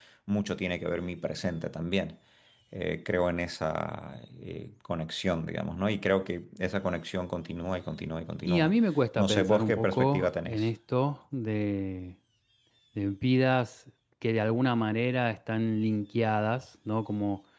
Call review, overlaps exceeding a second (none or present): present